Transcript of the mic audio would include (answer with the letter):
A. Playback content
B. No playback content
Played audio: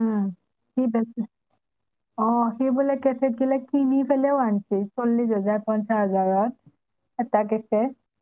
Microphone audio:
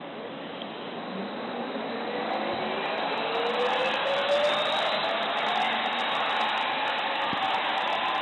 B